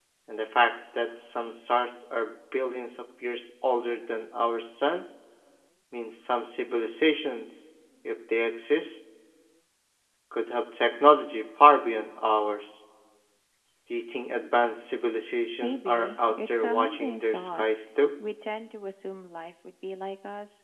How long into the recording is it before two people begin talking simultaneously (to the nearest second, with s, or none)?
16 s